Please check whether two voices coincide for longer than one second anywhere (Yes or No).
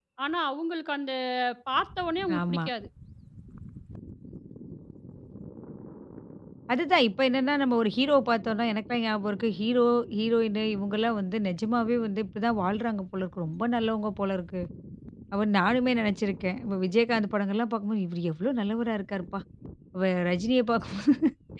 No